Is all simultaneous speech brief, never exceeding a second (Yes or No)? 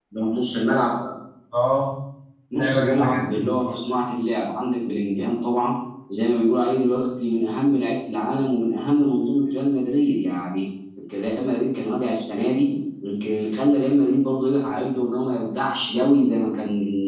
No